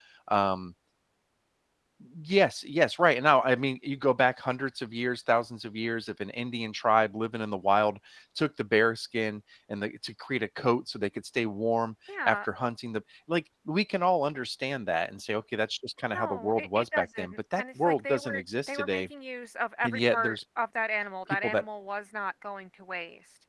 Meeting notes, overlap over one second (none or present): present